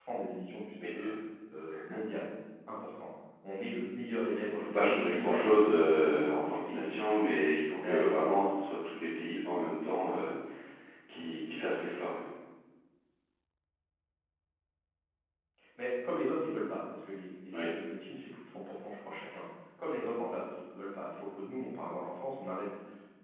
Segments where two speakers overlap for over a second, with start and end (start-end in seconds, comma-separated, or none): 4.5-7.0